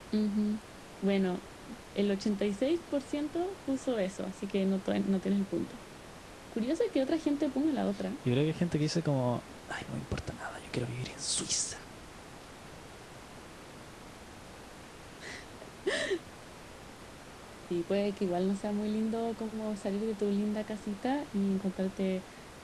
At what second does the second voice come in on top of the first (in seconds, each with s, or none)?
none